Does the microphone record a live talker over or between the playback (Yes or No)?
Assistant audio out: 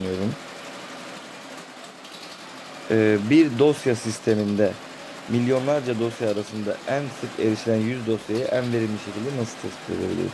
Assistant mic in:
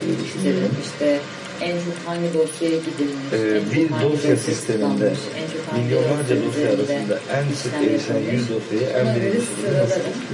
Yes